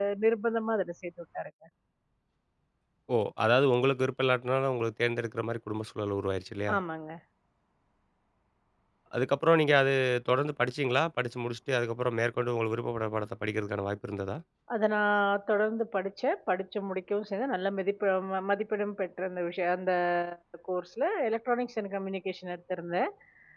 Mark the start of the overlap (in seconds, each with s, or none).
none